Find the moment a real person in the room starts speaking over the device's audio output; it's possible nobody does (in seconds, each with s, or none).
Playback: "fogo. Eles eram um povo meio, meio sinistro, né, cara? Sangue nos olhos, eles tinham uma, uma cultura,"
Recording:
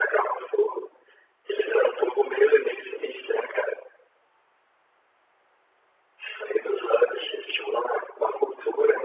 none